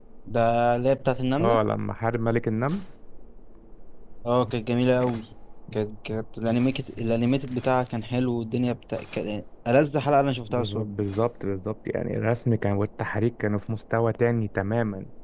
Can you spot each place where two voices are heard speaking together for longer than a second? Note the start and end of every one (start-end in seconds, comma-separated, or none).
none